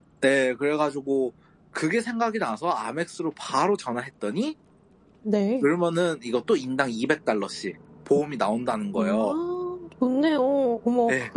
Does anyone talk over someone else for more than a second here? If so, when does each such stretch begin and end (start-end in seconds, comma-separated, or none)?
none